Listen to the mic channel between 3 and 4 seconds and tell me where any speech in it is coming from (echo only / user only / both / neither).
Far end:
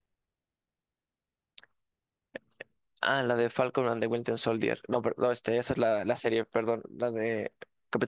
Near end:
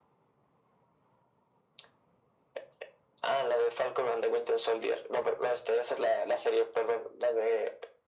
echo only